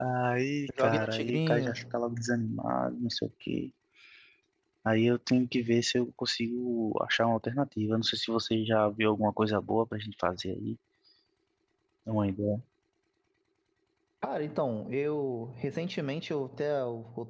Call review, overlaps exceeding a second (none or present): present